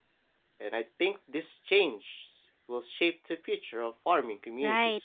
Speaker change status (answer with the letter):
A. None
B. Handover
B